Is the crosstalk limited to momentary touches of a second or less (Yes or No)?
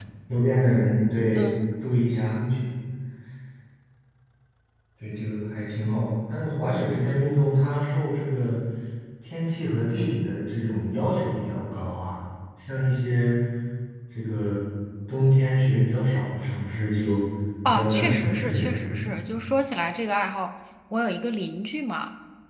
No